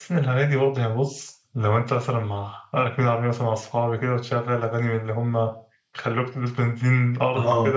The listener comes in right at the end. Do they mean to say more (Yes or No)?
No